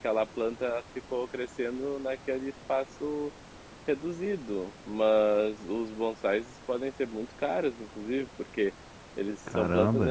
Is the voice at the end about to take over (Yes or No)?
No